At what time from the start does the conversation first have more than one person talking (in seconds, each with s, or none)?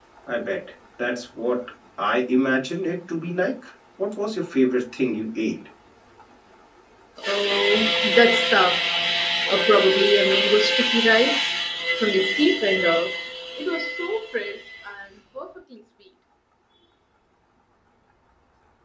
none